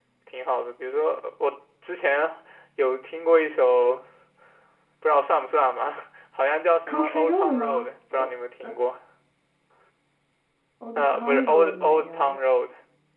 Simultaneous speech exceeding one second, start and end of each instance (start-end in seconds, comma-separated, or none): 6.9-8.3, 11.0-12.4